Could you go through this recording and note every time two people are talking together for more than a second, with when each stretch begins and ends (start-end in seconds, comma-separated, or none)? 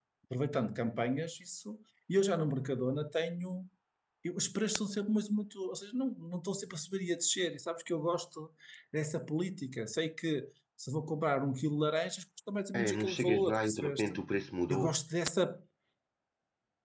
12.8-14.1